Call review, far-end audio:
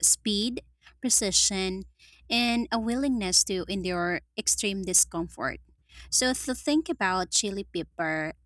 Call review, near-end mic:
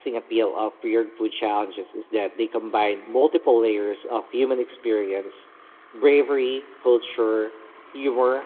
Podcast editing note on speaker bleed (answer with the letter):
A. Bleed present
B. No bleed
B